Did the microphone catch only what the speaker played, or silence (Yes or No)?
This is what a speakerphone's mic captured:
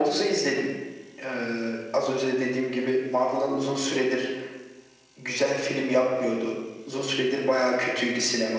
Yes